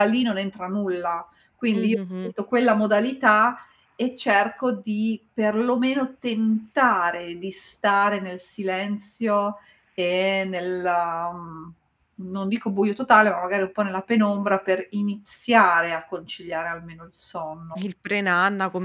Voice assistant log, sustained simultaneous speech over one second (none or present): none